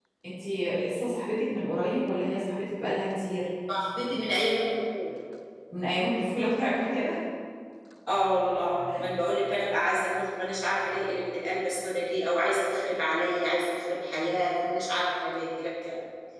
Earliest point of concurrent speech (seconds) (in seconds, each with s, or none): none